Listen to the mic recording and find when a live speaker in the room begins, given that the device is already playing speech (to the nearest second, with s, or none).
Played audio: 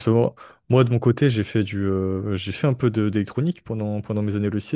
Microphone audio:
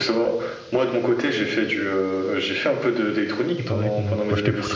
4 s